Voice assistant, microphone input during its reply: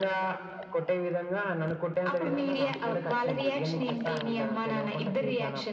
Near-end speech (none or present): none